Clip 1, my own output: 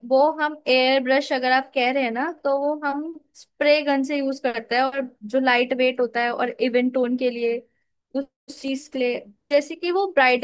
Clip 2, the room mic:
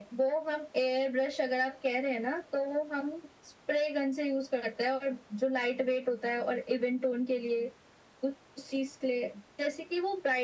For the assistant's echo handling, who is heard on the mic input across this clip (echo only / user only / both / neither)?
echo only